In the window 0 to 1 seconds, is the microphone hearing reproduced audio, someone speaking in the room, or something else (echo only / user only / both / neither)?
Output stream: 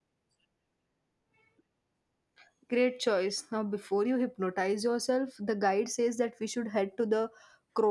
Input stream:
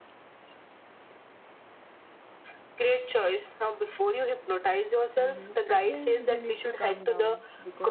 neither